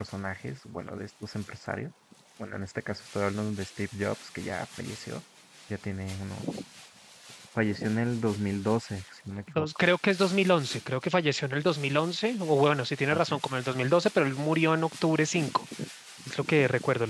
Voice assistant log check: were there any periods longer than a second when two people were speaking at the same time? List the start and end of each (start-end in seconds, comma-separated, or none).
none